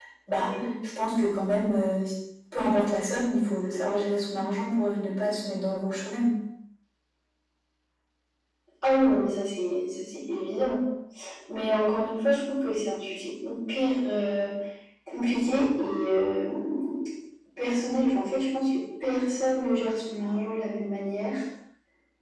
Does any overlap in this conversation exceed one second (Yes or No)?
No